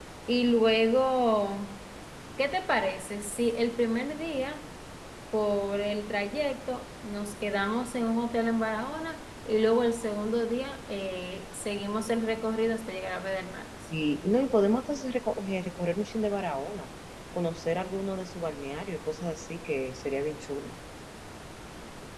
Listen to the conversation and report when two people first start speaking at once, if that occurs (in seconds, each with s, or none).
none